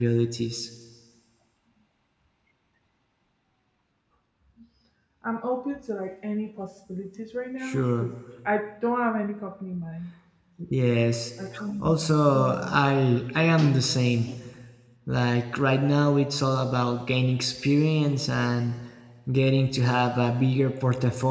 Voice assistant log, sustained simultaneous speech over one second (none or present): none